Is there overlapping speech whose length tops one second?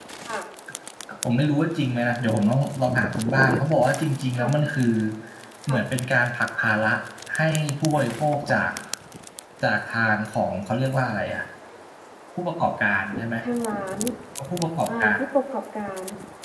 No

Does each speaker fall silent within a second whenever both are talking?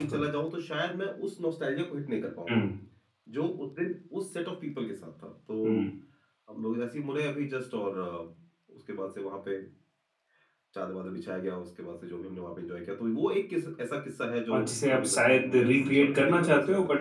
No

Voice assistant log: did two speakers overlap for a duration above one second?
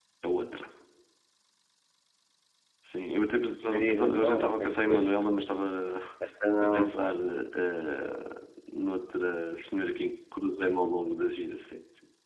Yes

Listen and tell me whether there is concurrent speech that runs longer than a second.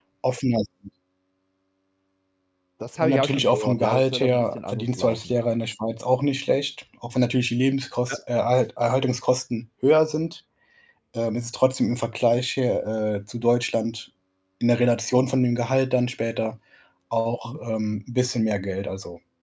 Yes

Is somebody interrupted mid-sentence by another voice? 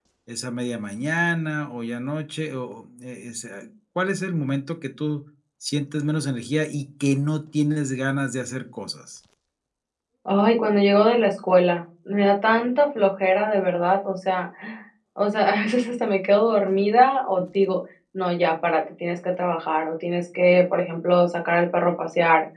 No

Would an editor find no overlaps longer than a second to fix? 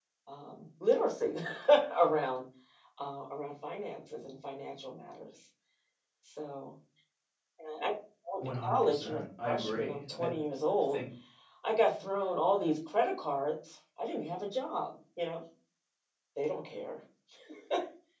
No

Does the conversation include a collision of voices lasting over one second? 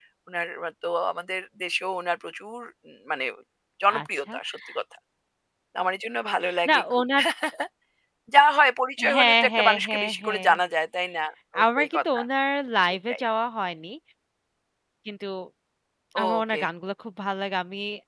Yes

